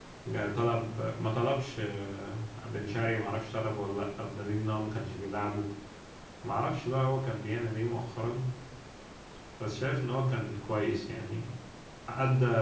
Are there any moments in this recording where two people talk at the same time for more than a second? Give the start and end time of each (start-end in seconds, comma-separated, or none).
none